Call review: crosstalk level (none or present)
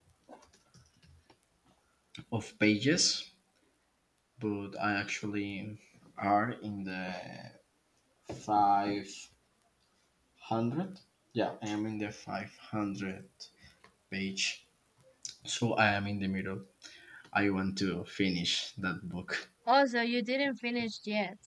none